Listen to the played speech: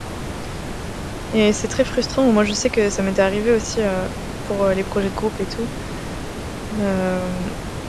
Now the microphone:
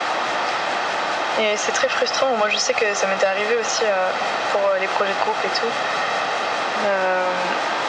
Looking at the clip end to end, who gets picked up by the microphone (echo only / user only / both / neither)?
echo only